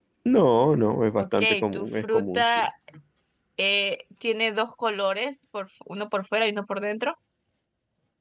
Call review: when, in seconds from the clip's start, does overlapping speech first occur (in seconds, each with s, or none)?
1.2 s